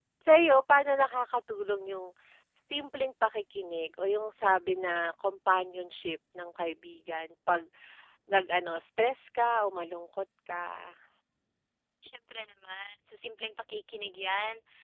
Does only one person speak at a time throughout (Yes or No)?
Yes